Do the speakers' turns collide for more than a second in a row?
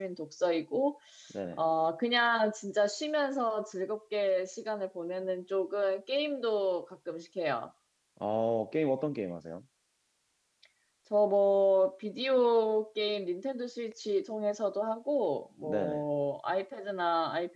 No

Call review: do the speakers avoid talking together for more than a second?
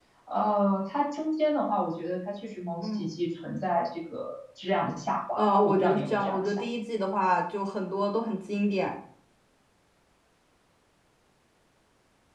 No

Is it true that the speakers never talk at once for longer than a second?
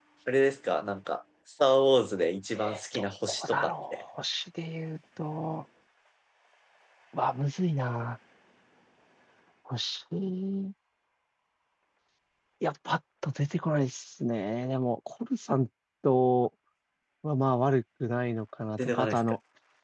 No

